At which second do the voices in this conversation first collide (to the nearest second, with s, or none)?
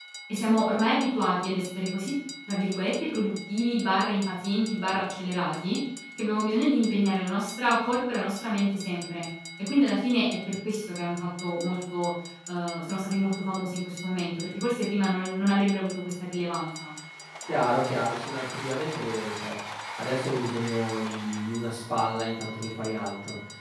none